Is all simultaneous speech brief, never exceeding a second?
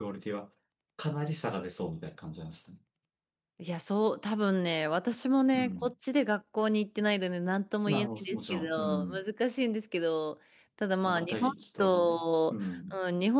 No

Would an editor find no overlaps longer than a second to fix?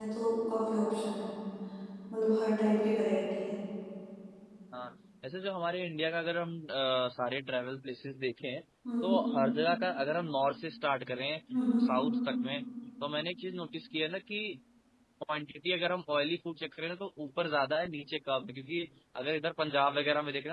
Yes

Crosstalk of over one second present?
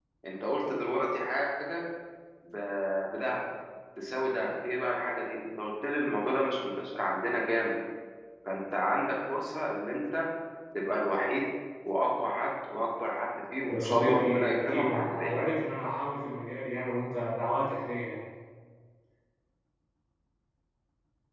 Yes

